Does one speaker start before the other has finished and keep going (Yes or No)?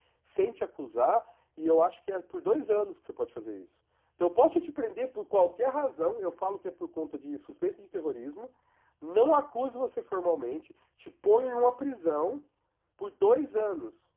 No